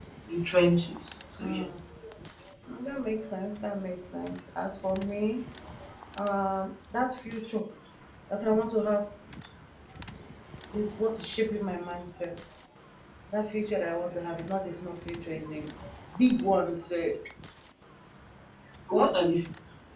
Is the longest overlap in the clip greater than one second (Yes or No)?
No